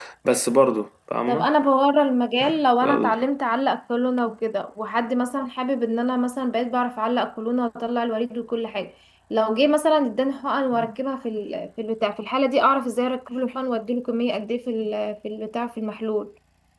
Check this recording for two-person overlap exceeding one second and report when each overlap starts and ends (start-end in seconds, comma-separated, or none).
none